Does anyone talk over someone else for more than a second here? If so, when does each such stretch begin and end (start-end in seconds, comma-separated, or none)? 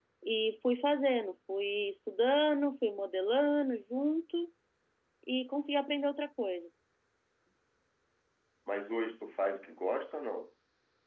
none